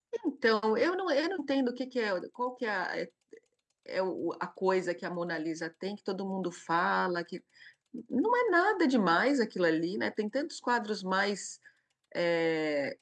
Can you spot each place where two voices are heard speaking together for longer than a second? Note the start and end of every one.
none

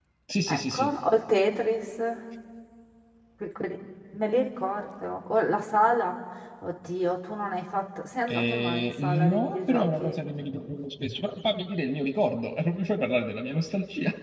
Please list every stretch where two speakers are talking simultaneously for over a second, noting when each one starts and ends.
8.3-10.2

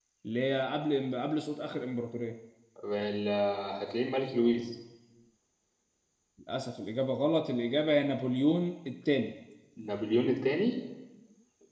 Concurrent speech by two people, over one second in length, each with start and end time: none

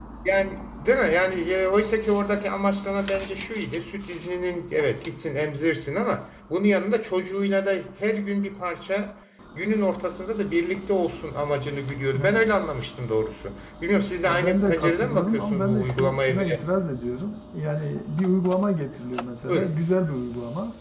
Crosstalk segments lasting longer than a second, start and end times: 14.2-16.6

